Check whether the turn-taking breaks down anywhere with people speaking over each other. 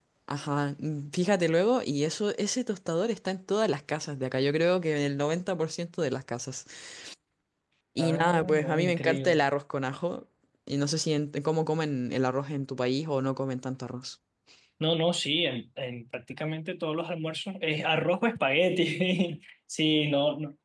Yes, from 8.0 s

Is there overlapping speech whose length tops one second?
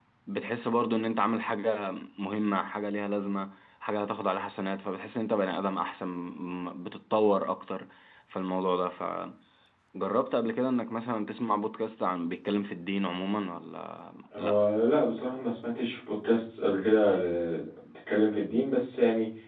No

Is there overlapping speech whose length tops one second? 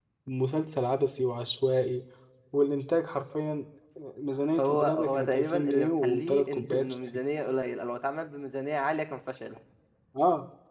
Yes, from 4.6 s

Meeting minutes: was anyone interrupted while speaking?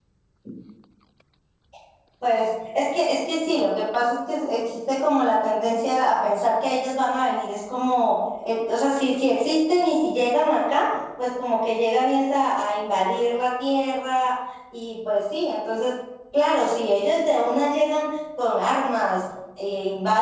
No

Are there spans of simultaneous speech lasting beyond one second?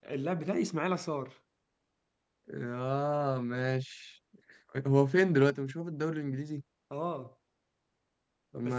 No

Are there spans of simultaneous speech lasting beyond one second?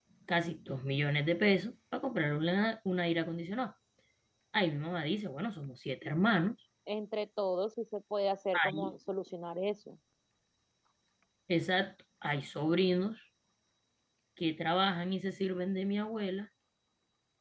No

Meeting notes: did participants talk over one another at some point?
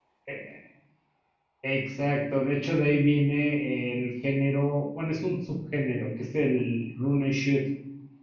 No

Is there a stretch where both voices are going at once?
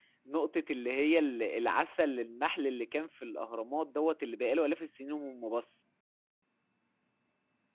No

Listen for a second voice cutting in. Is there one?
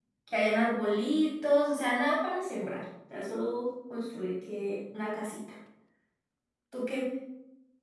No

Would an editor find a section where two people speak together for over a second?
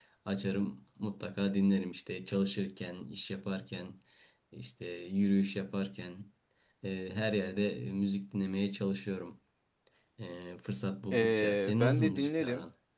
Yes, from 11.1 s

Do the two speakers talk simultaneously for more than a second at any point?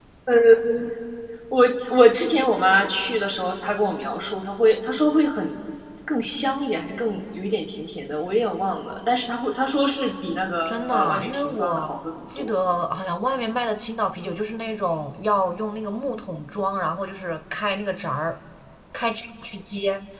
Yes, from 10.6 s

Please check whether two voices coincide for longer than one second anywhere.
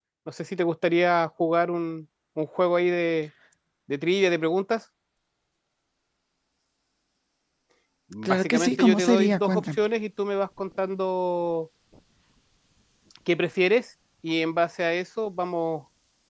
Yes, from 8.2 s

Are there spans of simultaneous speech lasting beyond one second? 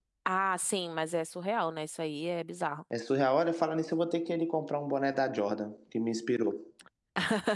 No

